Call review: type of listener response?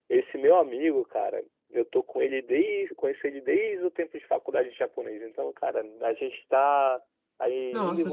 listening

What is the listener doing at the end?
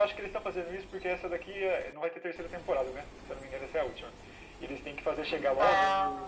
listening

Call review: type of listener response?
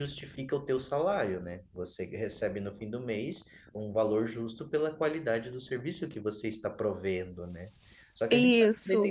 listening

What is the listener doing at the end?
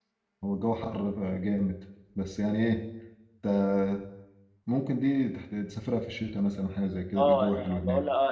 taking over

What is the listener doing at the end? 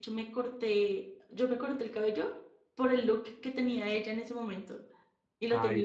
taking over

